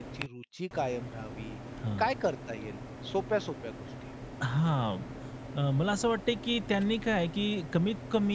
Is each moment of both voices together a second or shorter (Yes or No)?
Yes